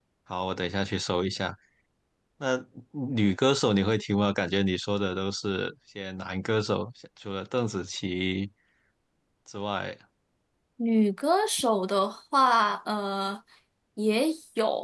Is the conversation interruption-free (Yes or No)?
Yes